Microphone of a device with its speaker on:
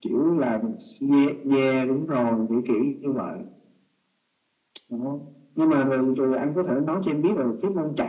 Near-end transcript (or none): none